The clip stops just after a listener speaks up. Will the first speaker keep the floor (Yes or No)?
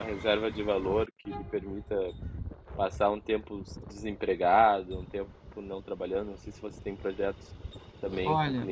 No